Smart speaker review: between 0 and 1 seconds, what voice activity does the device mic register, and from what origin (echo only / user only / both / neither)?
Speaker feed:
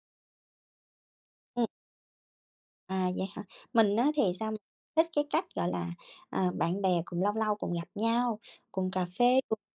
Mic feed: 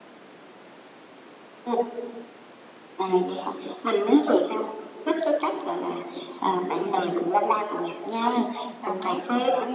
neither